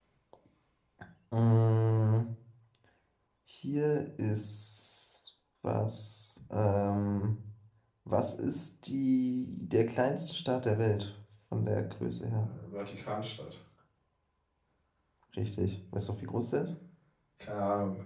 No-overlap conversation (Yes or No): Yes